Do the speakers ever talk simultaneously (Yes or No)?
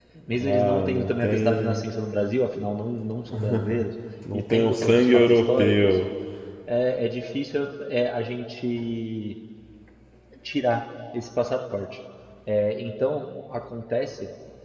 Yes